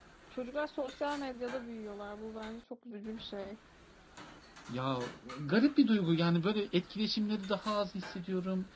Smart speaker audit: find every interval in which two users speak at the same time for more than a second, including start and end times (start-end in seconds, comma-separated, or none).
none